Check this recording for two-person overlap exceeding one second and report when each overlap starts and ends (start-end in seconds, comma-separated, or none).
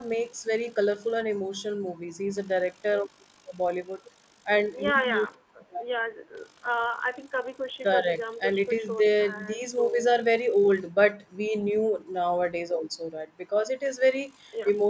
7.8-9.9